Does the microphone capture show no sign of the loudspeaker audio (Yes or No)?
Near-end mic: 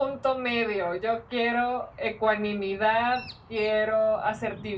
No